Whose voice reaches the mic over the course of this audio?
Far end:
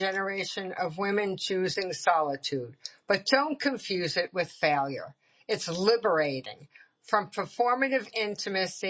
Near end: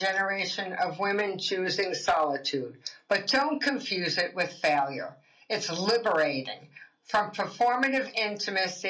echo only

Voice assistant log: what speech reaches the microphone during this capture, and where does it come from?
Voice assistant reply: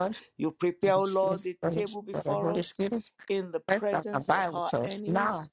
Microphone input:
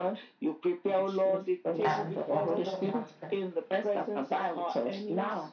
both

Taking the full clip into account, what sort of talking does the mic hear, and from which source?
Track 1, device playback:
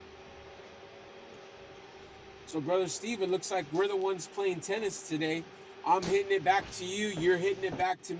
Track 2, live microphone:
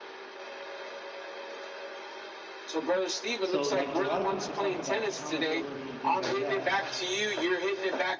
both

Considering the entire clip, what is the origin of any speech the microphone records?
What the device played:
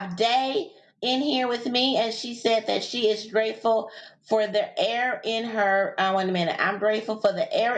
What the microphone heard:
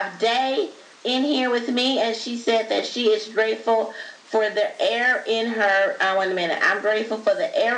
echo only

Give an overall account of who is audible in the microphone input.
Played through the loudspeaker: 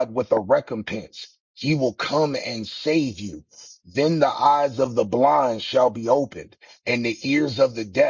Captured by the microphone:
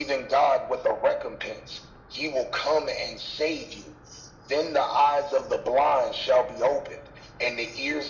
echo only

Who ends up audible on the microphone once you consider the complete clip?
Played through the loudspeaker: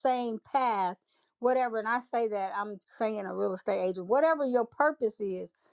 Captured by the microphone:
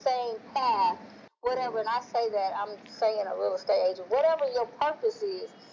echo only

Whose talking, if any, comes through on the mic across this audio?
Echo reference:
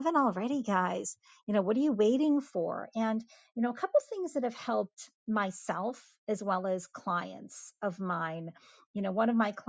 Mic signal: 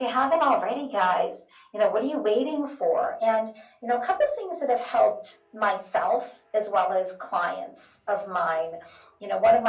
echo only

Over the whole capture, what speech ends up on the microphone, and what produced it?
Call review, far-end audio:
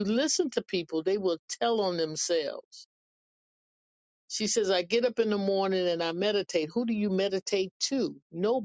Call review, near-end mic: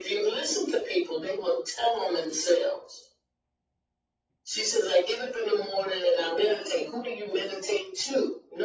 echo only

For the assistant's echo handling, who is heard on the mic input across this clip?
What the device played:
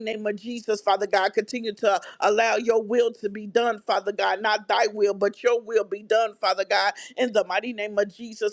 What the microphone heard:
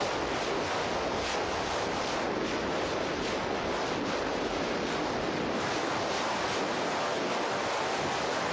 neither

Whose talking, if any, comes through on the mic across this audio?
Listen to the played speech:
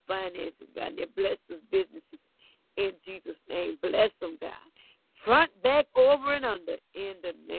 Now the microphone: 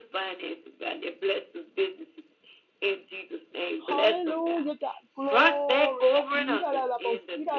both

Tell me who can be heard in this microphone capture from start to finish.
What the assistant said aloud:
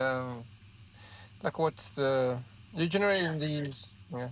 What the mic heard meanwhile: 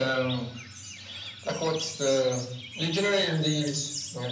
echo only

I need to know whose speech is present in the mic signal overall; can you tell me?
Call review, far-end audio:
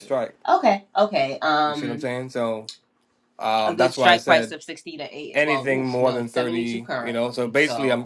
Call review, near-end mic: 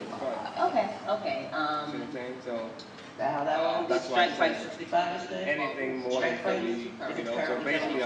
both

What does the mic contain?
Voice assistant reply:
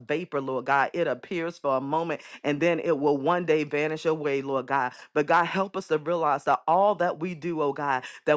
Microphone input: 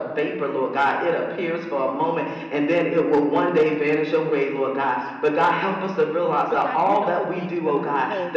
both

